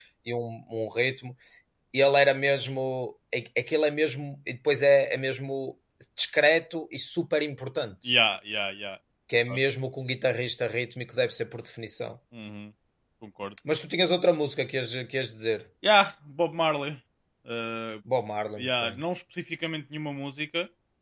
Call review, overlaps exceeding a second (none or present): none